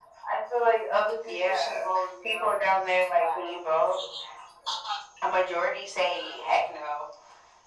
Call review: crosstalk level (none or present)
present